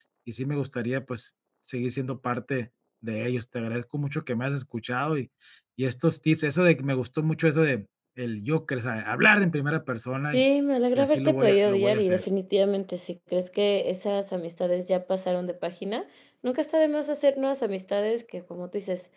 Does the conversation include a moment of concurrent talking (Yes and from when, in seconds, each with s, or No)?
Yes, from 11.0 s